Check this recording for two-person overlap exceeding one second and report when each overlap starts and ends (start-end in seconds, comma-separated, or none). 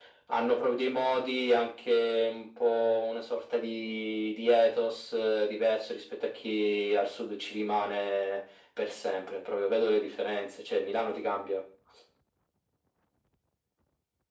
none